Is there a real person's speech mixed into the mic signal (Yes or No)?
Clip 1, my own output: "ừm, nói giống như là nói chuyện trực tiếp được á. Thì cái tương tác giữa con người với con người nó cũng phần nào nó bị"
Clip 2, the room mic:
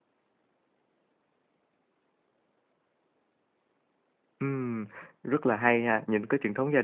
Yes